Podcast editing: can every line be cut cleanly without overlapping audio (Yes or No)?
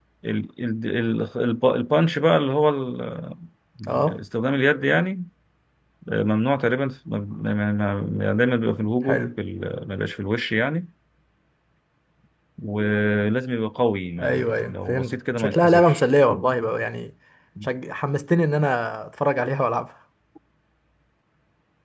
No